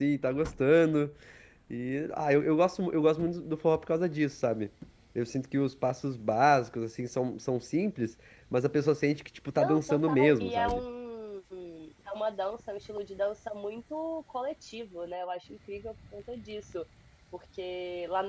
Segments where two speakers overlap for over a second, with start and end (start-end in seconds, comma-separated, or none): 9.6-10.8